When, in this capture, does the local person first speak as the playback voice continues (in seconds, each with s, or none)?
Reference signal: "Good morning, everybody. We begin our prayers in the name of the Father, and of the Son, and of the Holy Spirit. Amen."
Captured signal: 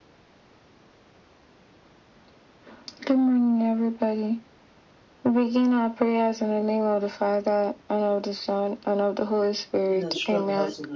9.9 s